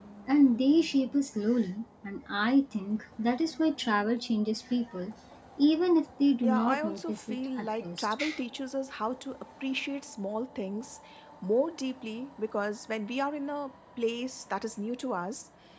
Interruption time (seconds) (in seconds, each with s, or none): 6.4 s